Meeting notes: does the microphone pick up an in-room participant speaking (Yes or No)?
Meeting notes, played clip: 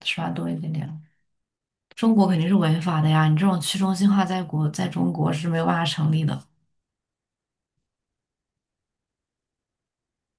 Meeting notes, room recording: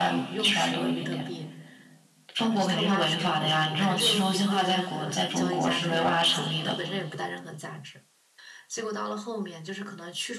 Yes